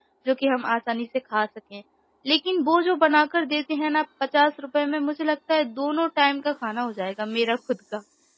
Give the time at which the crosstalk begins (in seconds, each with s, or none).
none